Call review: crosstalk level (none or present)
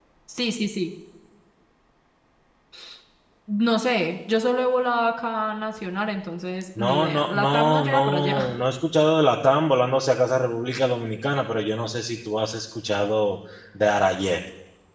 present